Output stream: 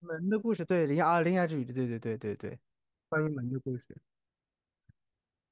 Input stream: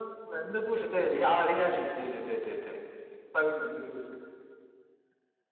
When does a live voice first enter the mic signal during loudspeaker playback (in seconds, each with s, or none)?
none